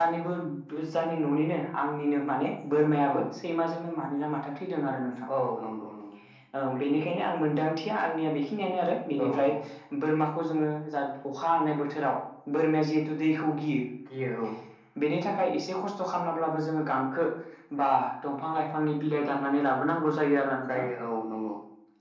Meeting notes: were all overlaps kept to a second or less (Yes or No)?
Yes